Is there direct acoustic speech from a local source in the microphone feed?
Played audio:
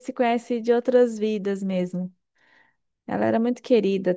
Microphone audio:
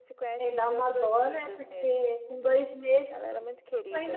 Yes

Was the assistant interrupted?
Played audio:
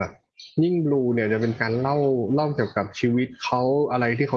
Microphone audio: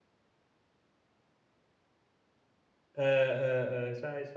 Yes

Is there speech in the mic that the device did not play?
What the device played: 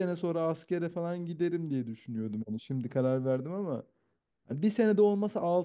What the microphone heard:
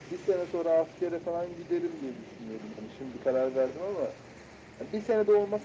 No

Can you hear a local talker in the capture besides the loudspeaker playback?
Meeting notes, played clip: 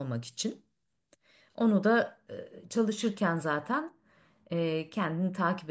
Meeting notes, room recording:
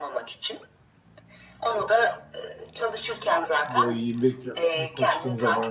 Yes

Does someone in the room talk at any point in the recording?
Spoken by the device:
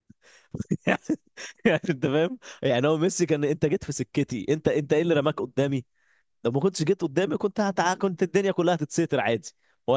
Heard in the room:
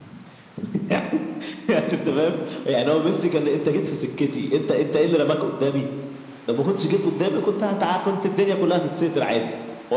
No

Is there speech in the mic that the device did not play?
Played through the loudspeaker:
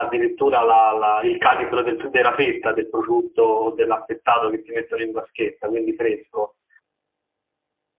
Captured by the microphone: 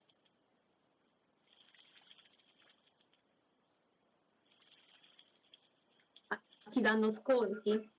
Yes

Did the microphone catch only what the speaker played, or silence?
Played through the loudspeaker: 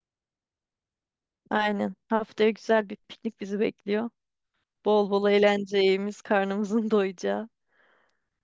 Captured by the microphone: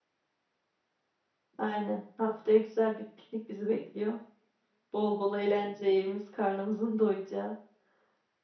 Yes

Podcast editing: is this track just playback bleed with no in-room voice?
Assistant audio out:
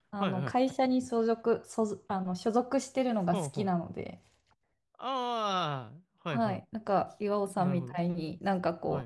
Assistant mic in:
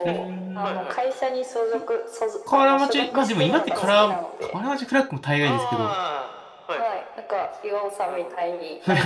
No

